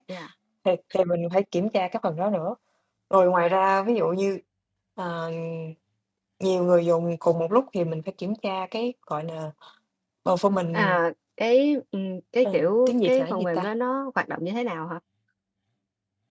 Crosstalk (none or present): present